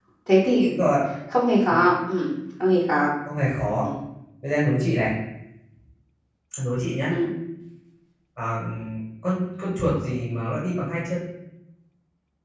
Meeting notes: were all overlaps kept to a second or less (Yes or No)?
Yes